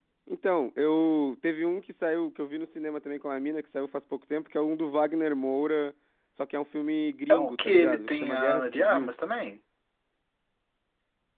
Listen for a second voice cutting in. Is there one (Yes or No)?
Yes